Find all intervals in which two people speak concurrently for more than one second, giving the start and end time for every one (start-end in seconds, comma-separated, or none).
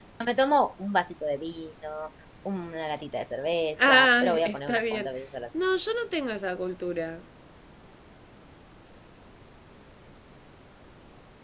3.9-5.1